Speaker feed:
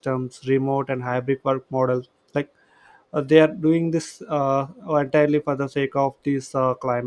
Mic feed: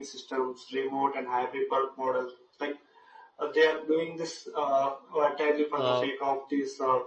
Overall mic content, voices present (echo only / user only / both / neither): both